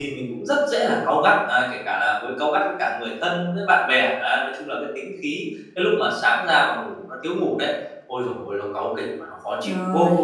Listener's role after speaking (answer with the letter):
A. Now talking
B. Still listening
A